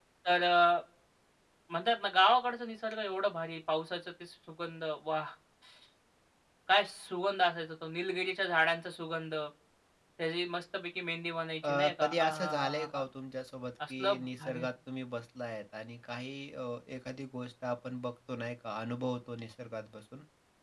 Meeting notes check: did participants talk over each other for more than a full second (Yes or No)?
Yes